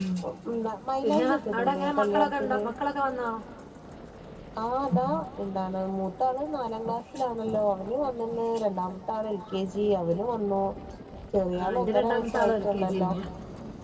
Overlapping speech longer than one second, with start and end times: 1.0-2.6, 11.6-13.1

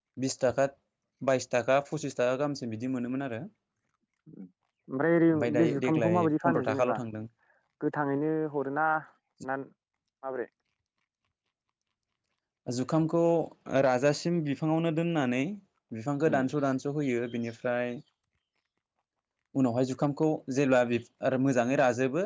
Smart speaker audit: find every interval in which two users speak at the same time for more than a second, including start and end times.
5.5-7.0

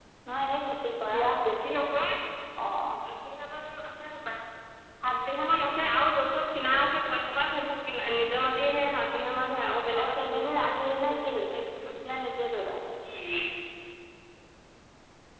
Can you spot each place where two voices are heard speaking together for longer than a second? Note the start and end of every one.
10.0-11.4

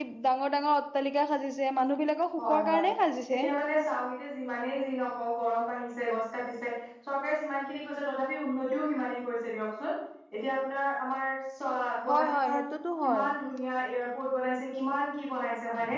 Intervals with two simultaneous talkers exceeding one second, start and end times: none

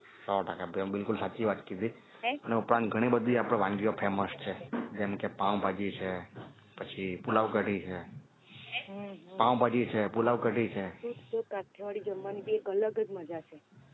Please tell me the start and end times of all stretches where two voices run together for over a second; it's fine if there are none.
none

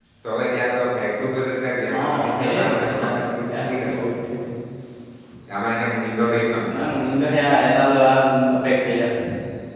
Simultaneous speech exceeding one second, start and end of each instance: 2.0-4.0

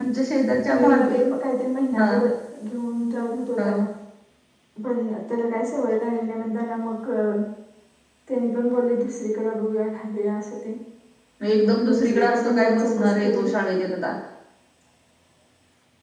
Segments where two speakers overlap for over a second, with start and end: 11.7-13.4

